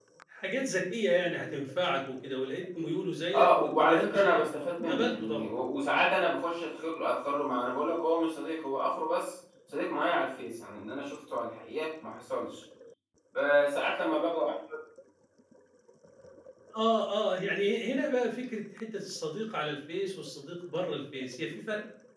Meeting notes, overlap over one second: present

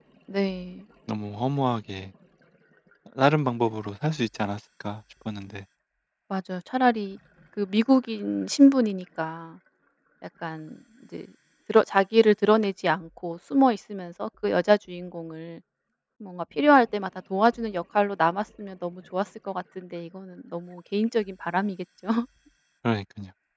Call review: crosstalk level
none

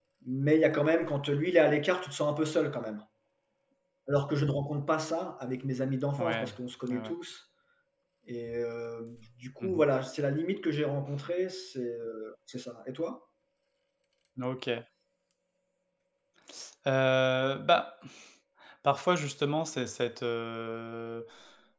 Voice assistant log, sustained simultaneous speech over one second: none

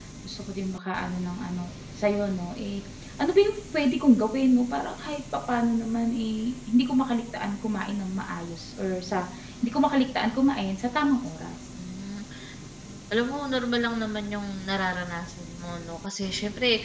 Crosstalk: none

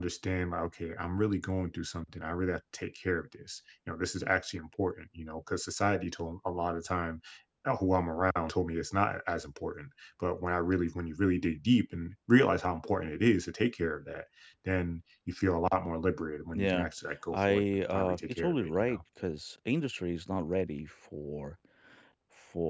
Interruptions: present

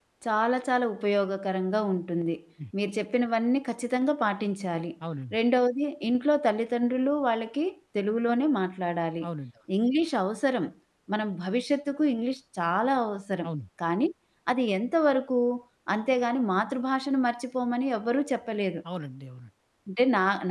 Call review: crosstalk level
none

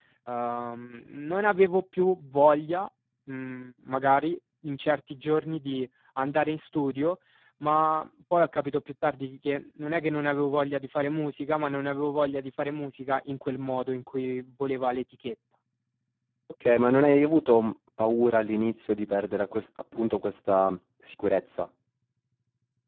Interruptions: none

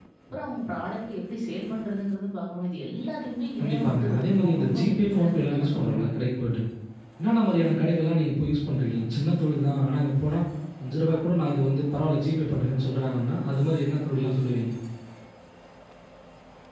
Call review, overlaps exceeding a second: present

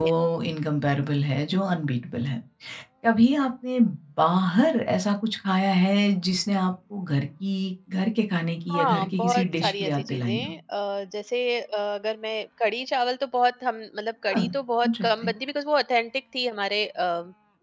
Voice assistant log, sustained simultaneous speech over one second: present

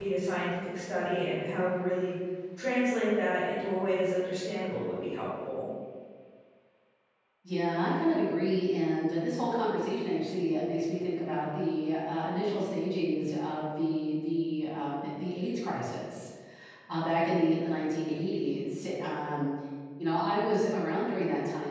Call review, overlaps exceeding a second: none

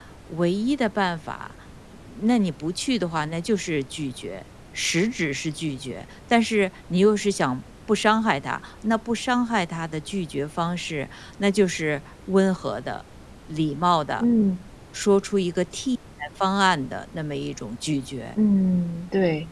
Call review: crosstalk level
none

